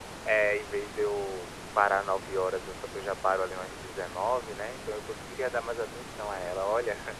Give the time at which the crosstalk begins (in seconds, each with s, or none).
none